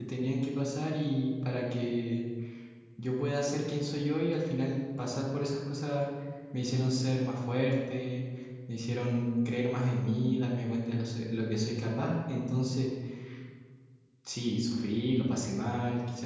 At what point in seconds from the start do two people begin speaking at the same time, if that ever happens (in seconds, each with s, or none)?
none